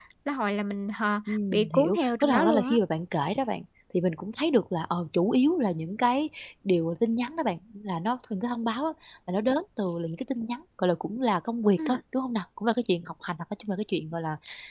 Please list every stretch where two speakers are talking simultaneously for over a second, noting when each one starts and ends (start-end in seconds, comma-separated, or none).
1.3-2.8